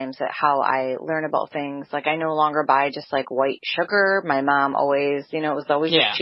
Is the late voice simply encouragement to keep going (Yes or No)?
Yes